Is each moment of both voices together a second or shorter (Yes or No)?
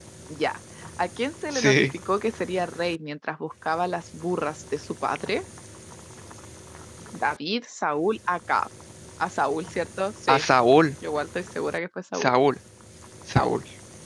Yes